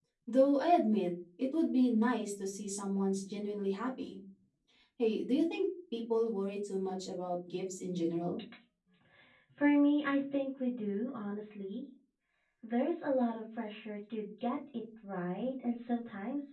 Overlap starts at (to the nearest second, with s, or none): none